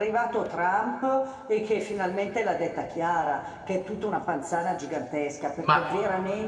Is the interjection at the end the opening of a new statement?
No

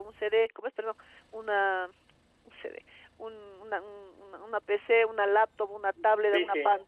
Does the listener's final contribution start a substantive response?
No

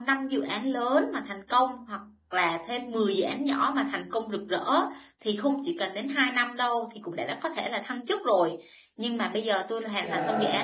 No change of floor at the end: Yes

